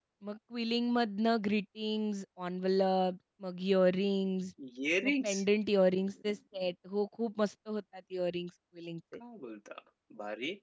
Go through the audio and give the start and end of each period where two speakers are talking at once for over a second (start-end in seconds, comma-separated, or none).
none